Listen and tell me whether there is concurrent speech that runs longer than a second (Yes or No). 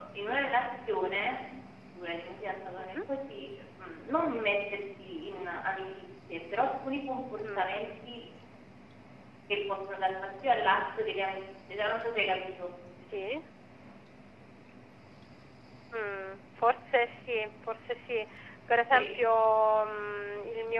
No